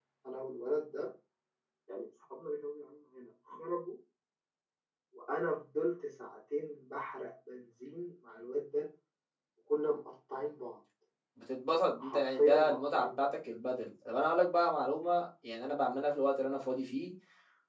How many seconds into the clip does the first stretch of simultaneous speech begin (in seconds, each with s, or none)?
12.0 s